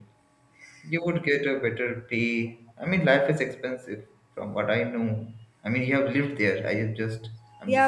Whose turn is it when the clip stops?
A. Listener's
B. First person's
A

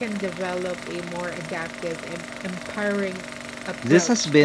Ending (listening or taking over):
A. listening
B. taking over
B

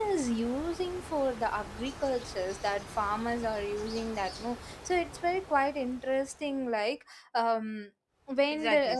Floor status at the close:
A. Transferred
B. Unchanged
A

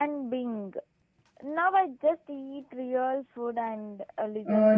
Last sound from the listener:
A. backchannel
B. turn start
B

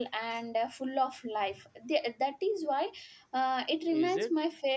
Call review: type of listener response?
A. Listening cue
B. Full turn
A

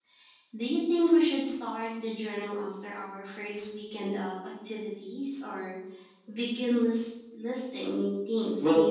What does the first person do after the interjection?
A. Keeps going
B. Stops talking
B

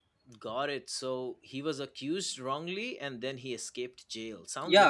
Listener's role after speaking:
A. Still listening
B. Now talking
B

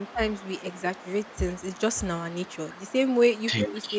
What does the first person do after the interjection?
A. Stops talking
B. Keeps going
B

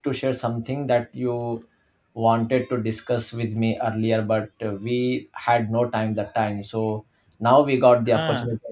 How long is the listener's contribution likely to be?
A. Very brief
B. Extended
A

